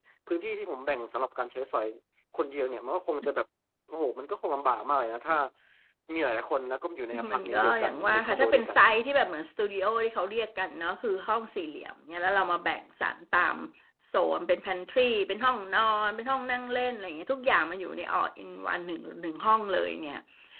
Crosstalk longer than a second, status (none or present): present